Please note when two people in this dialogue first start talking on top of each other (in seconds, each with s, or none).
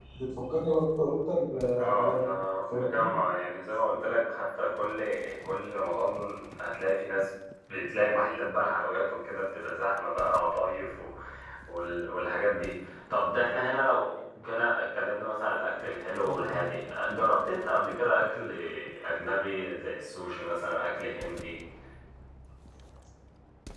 1.8 s